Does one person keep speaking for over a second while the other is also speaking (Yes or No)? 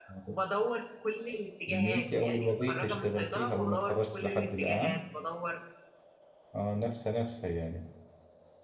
Yes